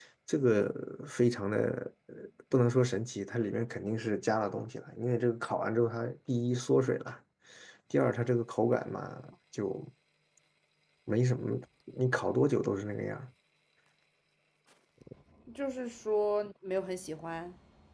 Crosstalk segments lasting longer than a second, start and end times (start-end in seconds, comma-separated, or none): none